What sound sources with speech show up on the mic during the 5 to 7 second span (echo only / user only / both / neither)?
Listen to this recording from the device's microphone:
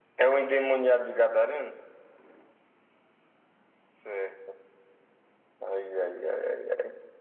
echo only